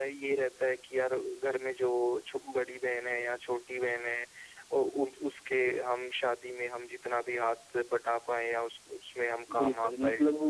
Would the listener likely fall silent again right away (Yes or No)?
No